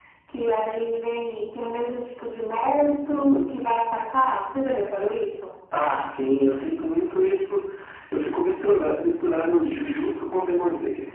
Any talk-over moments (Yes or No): No